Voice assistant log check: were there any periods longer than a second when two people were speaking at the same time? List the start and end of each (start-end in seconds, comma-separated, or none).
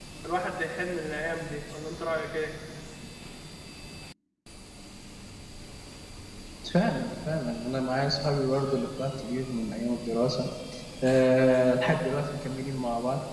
none